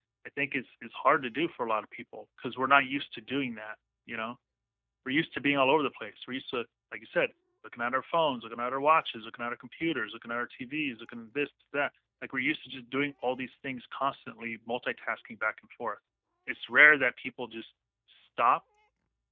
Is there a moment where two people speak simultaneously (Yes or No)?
No